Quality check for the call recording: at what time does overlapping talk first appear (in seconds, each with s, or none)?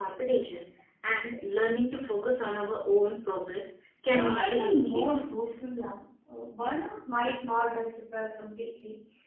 4.1 s